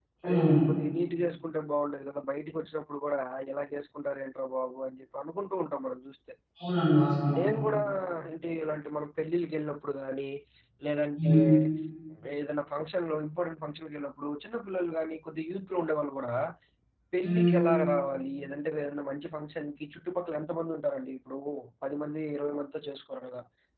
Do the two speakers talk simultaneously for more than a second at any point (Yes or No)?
No